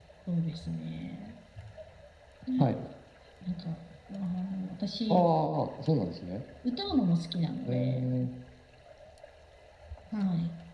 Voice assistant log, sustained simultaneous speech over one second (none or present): none